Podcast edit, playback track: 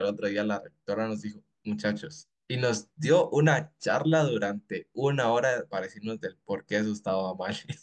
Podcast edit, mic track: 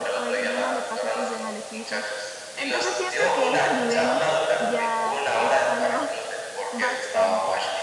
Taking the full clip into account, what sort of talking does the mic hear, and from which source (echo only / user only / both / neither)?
both